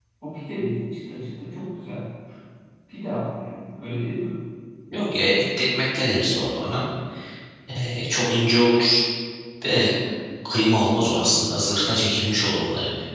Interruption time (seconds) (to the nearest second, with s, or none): none